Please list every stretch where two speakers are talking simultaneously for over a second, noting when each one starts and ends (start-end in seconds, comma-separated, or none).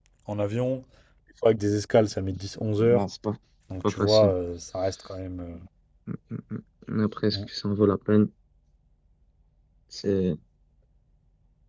none